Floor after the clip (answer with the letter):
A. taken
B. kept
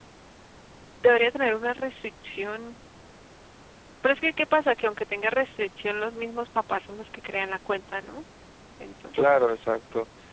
A